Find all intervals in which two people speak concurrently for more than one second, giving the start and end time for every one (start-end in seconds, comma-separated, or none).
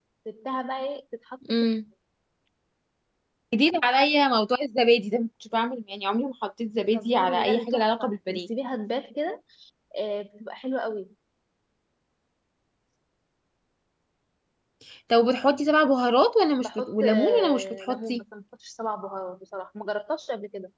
6.9-8.5, 16.6-18.2